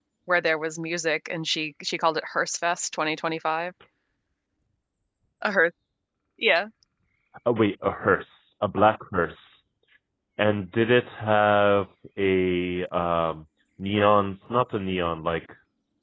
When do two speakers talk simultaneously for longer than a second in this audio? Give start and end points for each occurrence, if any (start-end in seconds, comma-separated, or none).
none